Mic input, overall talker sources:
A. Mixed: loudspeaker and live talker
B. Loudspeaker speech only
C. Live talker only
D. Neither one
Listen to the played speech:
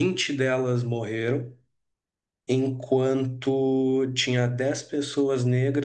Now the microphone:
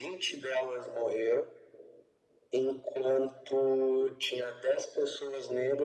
B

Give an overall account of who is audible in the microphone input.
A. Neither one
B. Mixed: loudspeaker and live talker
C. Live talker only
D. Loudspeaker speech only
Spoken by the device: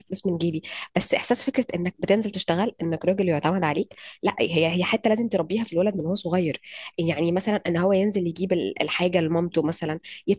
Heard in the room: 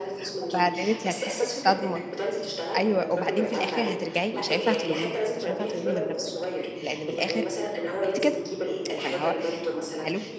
B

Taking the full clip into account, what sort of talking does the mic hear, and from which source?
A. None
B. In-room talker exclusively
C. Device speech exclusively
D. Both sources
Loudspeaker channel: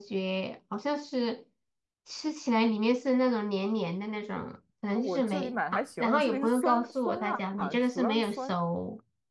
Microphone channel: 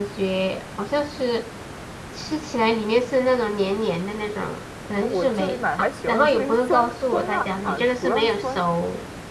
C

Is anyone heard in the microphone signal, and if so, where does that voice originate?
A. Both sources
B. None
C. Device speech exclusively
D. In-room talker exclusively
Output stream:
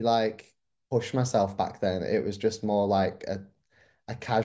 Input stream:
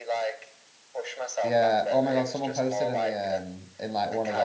A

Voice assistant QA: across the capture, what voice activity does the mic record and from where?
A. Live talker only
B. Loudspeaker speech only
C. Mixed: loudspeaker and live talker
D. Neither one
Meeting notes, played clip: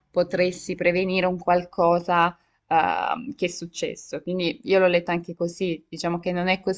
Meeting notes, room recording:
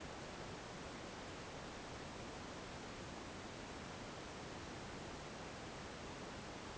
D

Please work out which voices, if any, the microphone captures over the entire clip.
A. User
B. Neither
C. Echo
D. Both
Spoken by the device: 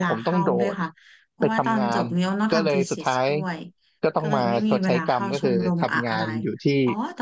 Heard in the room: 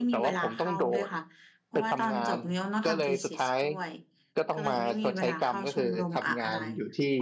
C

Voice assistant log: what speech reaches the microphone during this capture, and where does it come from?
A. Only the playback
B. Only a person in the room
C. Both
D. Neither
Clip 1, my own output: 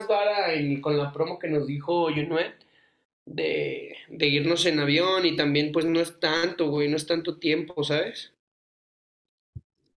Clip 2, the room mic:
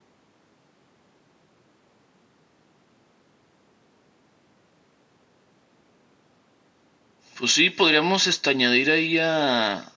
B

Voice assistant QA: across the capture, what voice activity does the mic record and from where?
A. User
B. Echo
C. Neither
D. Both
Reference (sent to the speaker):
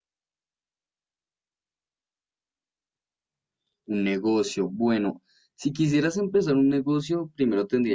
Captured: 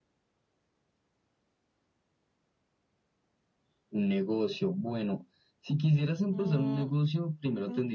D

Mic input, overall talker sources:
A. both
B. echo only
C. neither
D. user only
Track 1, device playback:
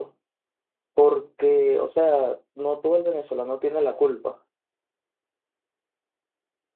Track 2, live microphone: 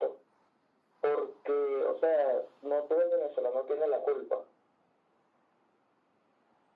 B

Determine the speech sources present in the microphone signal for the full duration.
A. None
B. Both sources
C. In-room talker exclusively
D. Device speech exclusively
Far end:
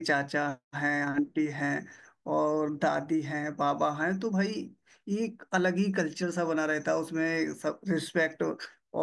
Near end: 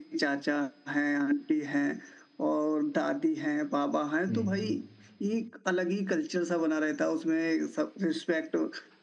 B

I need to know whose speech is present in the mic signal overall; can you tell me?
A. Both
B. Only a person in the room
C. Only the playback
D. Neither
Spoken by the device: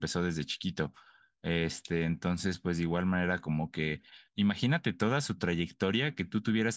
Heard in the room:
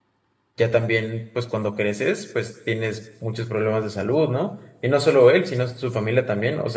B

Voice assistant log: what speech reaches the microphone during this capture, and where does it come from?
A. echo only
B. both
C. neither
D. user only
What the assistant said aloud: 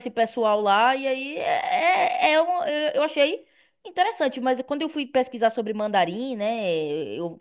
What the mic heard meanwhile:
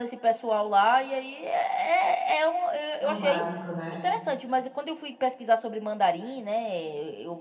B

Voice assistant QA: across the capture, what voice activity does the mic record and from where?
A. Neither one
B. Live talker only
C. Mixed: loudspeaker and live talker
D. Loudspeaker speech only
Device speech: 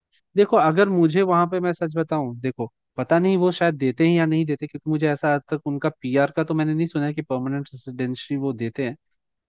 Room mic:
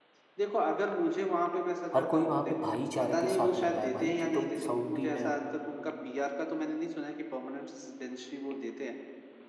C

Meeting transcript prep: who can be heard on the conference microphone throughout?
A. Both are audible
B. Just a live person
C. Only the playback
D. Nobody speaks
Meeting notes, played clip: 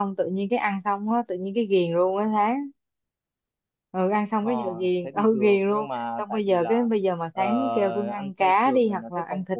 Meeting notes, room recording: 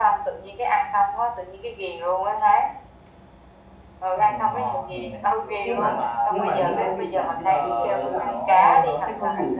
A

